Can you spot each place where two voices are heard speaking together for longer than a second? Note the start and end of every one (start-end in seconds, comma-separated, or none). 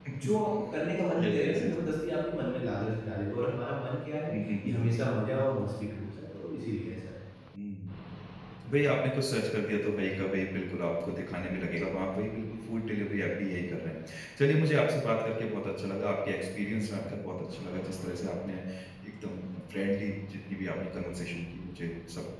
none